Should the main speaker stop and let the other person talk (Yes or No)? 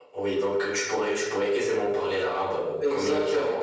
Yes